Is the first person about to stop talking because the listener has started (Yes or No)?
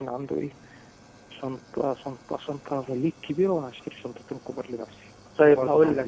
Yes